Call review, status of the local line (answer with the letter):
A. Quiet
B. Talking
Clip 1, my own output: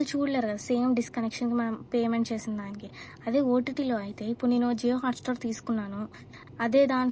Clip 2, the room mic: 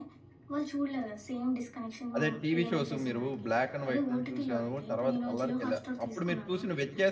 B